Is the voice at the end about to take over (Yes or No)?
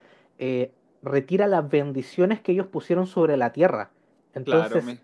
Yes